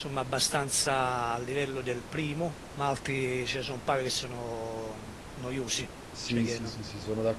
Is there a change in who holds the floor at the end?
Yes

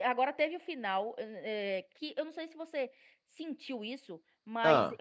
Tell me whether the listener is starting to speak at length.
No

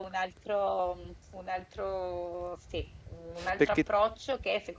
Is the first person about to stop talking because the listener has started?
No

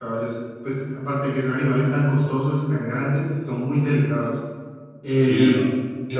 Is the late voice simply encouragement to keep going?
No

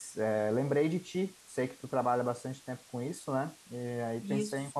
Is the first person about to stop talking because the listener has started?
No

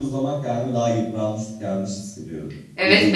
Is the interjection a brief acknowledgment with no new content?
No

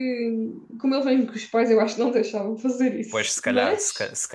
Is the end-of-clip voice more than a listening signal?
Yes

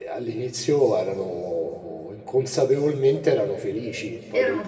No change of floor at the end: No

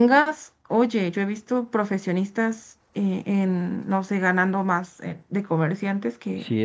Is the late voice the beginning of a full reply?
No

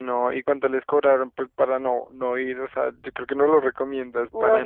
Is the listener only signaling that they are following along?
No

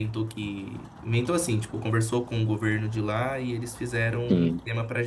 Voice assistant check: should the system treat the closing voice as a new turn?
No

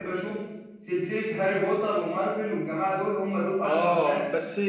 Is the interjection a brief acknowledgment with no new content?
No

